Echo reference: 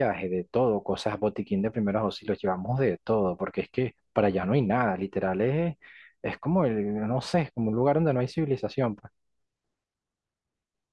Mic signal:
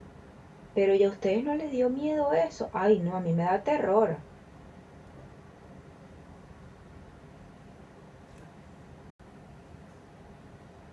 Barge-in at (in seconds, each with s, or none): 0.7 s